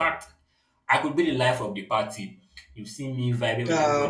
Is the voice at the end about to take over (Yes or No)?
No